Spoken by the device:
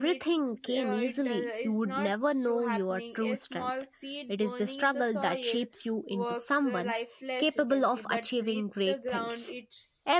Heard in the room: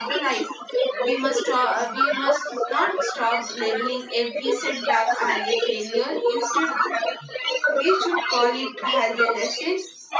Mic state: both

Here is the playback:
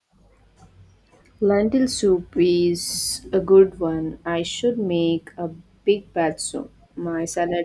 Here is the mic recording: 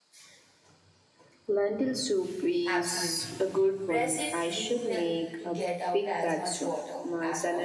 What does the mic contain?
both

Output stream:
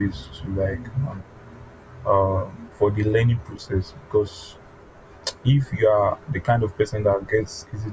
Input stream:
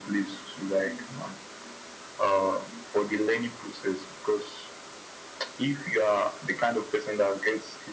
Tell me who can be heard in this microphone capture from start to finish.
echo only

